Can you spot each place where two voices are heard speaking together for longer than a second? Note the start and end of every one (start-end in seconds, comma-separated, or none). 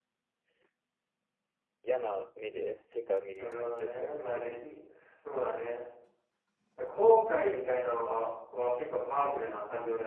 3.4-4.7